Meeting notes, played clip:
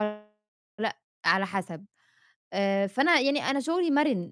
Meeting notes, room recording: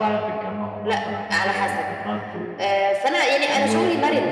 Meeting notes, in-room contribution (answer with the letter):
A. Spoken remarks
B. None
A